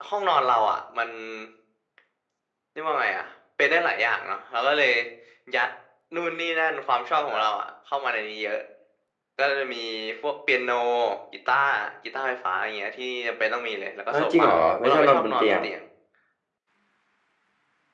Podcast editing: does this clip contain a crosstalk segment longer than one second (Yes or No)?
Yes